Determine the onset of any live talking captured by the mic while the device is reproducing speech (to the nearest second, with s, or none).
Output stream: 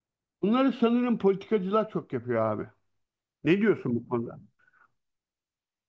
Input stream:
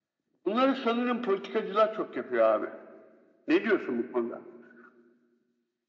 none